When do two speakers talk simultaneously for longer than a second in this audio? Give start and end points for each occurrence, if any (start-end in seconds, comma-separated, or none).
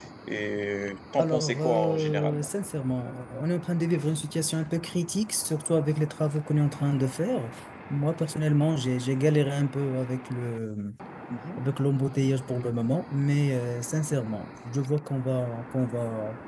1.2-2.5